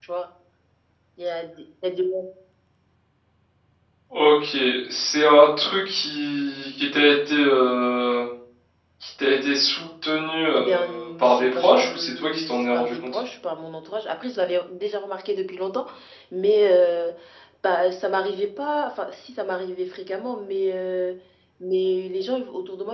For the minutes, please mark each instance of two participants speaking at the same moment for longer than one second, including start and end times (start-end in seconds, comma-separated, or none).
10.6-13.2